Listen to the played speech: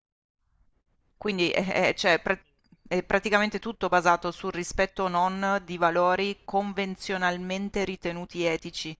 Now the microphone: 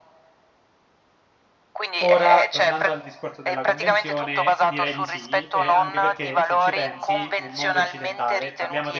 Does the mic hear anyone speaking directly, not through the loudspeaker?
Yes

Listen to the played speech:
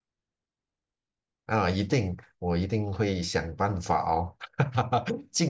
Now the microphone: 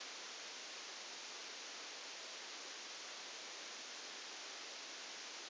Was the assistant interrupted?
No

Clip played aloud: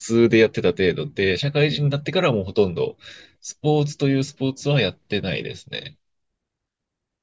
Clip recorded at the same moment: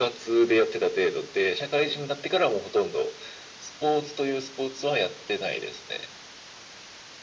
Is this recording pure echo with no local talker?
Yes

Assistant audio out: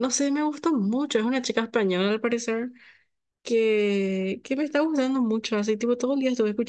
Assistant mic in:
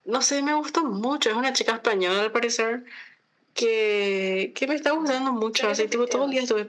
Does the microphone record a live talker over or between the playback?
Yes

